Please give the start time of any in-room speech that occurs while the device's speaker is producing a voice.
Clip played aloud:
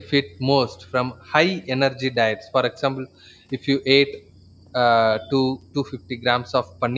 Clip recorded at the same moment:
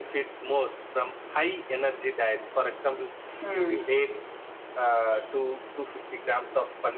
3 s

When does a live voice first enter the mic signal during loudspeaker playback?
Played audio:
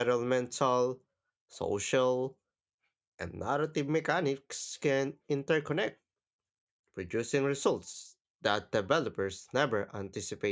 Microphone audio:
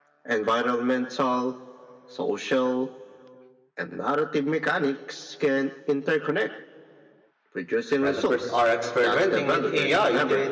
8 s

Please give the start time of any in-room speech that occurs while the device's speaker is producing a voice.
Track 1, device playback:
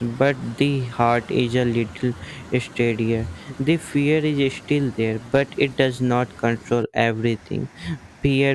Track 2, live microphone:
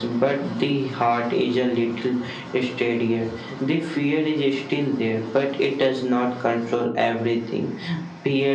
none

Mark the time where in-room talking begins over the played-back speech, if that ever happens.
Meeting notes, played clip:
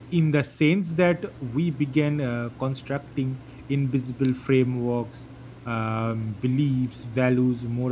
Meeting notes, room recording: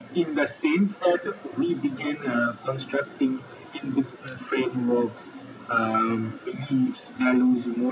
none

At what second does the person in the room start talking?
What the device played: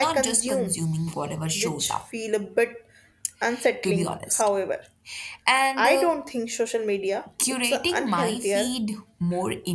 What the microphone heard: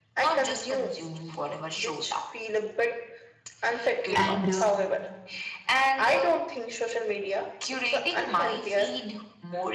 4 s

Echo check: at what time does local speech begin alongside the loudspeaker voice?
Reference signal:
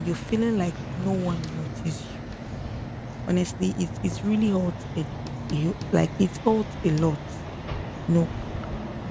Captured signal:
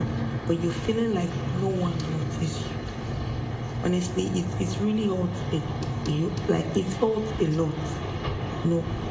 none

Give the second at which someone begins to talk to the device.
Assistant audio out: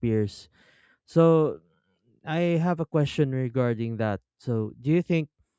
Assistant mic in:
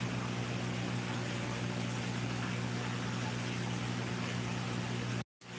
none

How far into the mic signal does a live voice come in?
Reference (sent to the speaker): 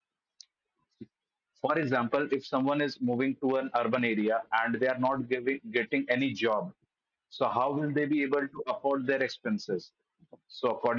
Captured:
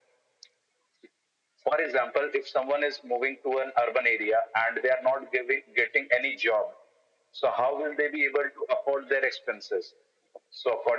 none

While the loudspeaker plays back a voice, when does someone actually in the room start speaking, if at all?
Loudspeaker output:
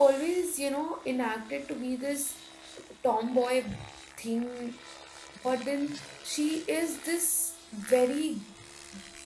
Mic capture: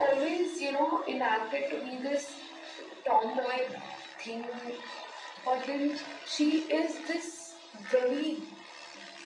none

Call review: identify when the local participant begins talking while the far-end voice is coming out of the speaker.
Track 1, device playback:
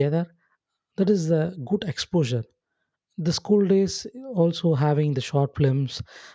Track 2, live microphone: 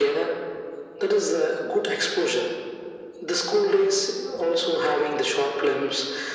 none

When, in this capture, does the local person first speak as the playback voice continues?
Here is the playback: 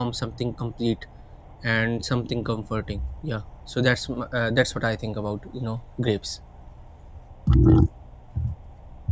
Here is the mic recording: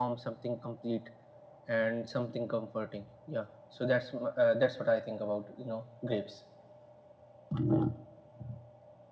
none

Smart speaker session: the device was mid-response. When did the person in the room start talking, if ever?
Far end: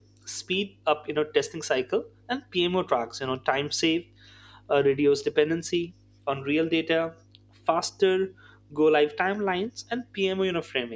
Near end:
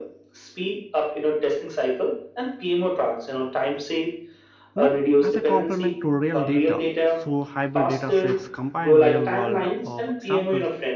5 s

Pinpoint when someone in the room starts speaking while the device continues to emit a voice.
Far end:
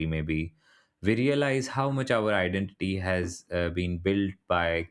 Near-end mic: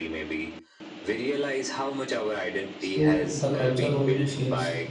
3 s

